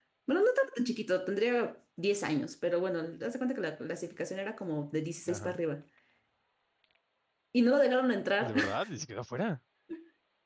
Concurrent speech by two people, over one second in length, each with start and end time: none

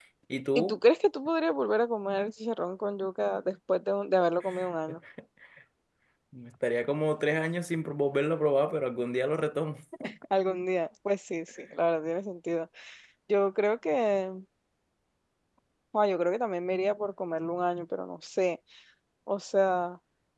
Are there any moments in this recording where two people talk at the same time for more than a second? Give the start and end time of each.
none

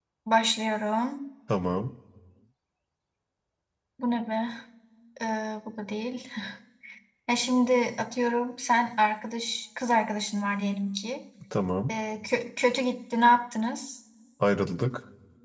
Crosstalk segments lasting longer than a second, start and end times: none

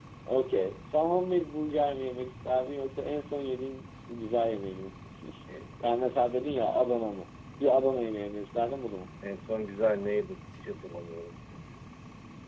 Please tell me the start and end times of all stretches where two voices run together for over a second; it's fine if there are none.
none

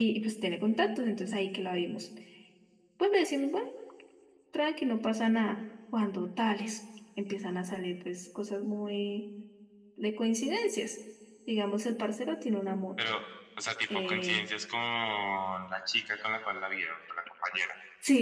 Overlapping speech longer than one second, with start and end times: none

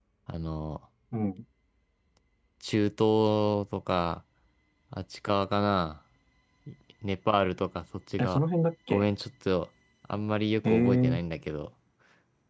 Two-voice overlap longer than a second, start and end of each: none

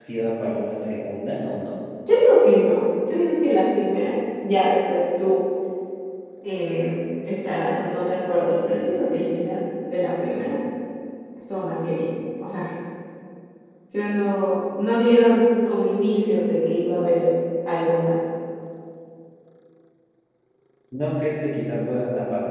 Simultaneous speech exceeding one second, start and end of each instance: none

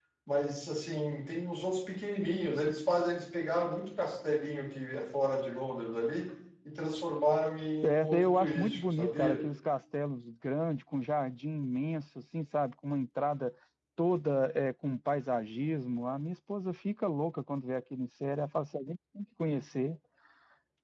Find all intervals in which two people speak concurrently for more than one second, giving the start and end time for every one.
7.8-9.4

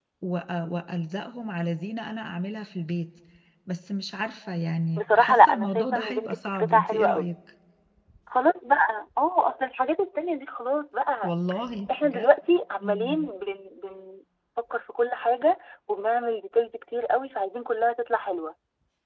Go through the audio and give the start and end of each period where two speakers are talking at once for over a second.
5.0-7.3

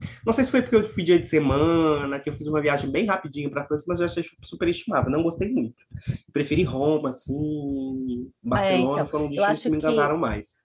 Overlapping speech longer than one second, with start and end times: 8.6-10.1

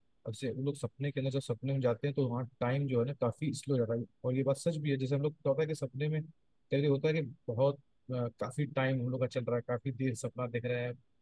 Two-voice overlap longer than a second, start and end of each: none

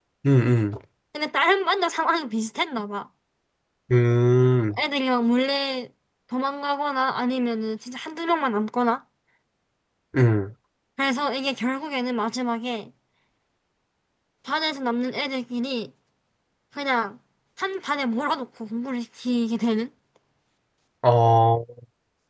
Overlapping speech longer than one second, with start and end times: none

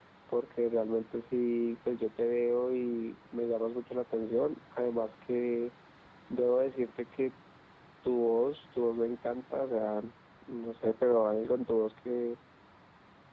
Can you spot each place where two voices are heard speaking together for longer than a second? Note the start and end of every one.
none

